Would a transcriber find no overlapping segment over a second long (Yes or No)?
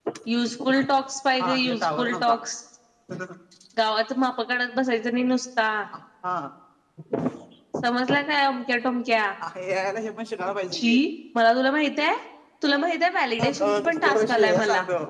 No